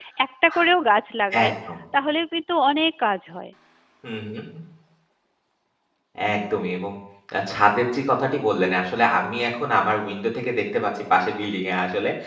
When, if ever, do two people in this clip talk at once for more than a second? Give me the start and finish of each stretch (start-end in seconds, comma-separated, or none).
none